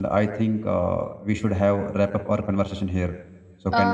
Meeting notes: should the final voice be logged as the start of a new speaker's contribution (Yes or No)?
Yes